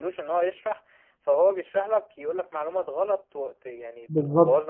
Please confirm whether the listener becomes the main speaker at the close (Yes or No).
Yes